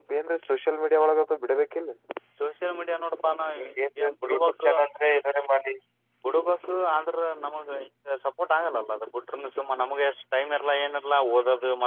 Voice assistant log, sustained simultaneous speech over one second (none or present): none